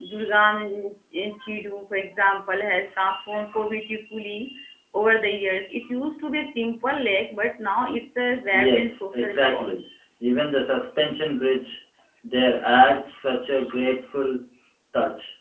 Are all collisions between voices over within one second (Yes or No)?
No